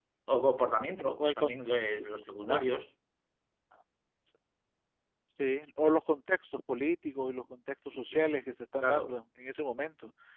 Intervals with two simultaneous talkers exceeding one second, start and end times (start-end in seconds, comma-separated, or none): none